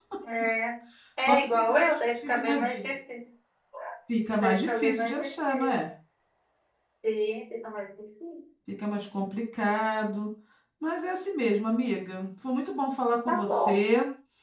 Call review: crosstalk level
present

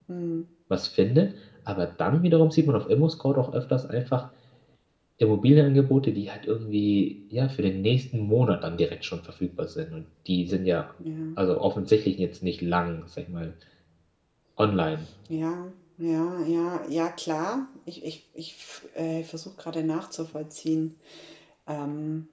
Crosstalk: none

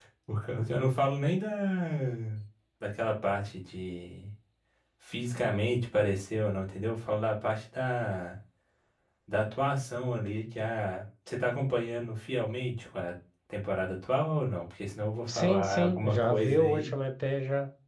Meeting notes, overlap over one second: present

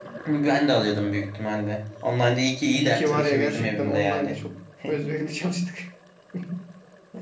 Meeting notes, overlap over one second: present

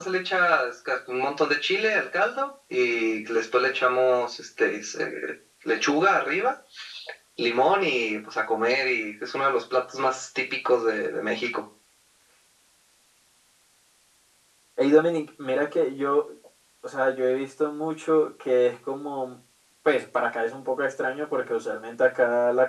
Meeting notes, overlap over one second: none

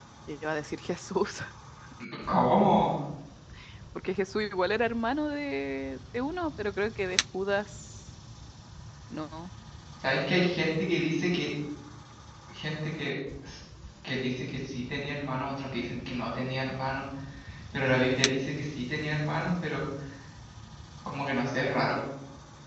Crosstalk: none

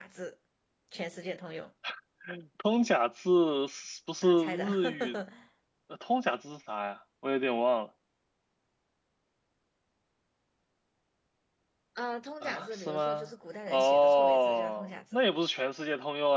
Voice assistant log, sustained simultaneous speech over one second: present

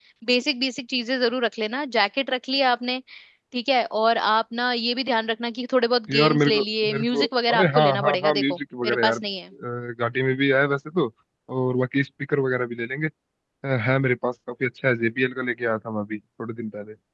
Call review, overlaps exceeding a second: present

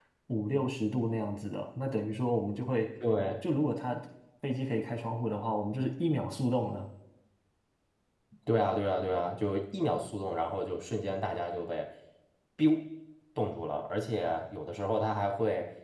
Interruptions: none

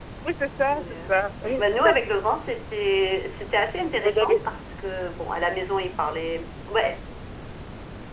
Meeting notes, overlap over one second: none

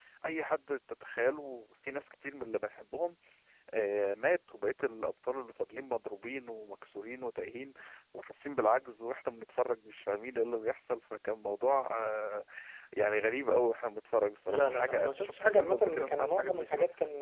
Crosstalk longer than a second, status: present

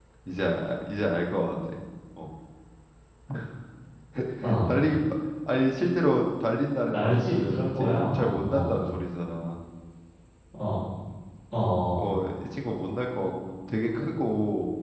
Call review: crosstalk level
present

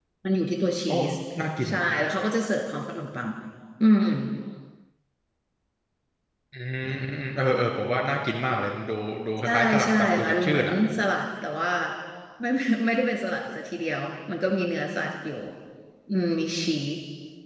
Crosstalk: present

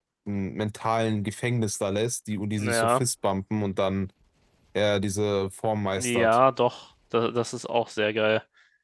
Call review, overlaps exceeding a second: none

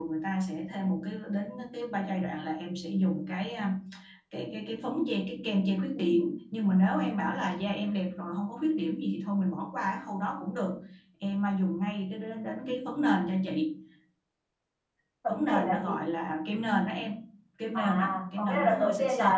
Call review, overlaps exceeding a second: present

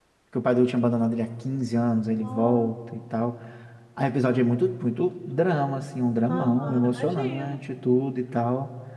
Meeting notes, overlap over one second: present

